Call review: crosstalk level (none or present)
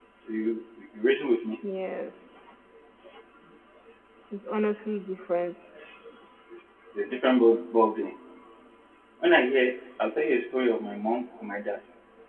none